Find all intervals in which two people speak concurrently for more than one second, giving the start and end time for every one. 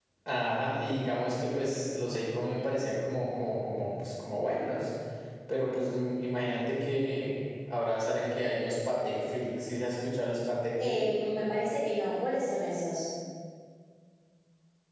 none

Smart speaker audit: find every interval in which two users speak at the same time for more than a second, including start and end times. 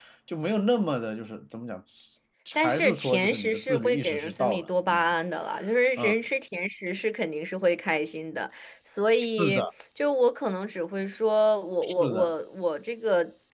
2.6-5.1

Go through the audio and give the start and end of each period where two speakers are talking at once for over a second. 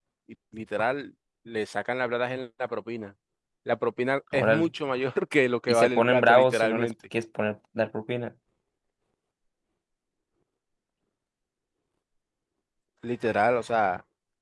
5.7-6.9

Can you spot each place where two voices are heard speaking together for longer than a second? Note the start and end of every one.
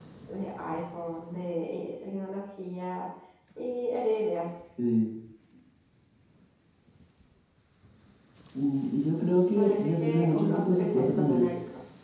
9.5-11.5

